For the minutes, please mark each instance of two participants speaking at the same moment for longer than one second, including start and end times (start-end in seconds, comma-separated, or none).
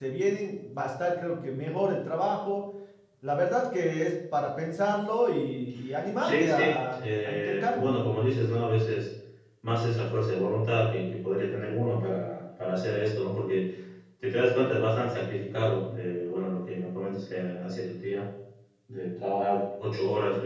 6.2-7.9